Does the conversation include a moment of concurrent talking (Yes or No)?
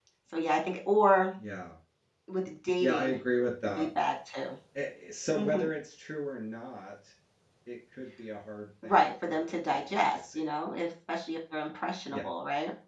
Yes